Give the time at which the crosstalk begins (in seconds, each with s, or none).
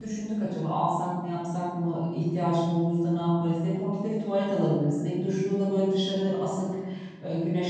none